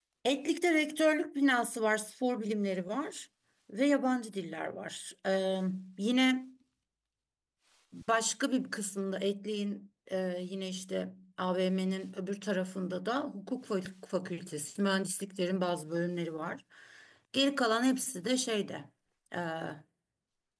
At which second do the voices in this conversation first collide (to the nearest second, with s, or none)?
none